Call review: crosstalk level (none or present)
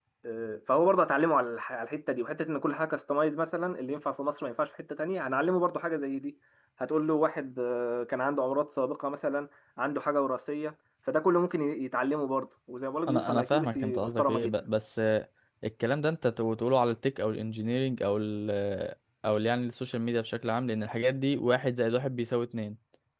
present